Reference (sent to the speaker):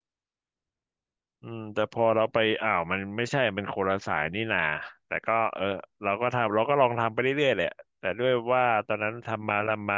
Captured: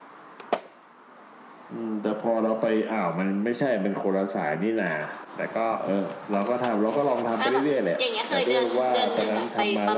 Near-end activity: present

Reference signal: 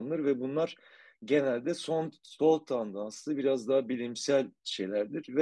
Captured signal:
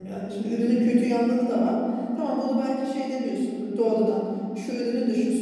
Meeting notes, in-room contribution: present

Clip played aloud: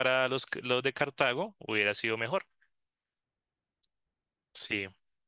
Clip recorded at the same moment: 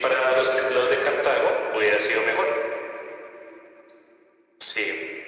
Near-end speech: none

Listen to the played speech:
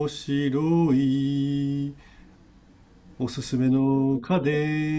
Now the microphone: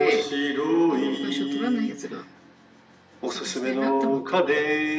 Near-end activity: present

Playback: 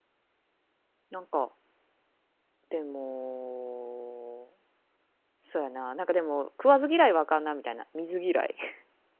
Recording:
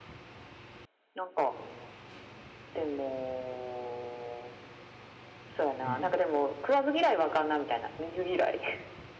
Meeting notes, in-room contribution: present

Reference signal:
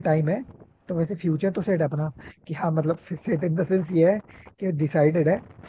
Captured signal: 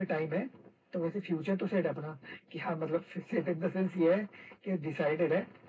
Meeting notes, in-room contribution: none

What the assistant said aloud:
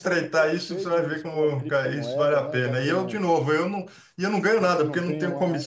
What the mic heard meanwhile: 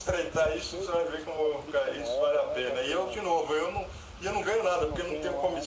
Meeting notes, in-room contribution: none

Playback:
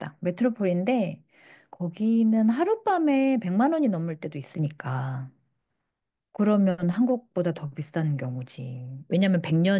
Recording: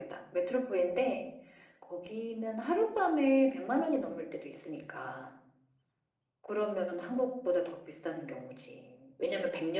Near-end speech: none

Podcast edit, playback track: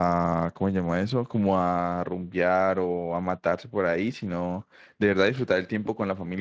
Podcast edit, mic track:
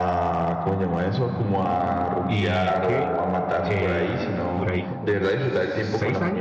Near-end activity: present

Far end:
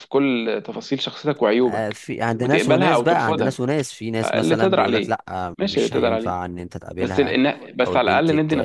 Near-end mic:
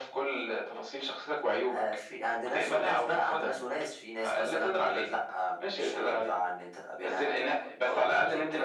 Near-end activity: none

